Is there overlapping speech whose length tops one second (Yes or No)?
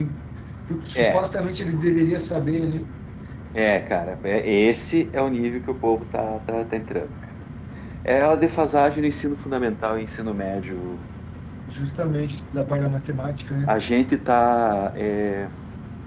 No